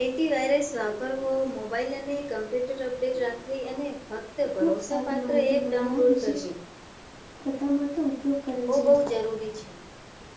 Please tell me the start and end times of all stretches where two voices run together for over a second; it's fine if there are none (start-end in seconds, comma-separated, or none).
4.6-6.4